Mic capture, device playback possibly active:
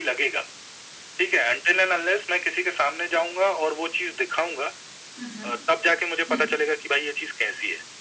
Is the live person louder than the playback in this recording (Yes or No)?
No